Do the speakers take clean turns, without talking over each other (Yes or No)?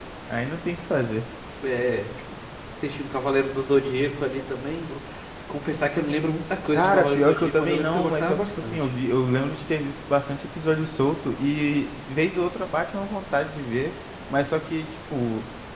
No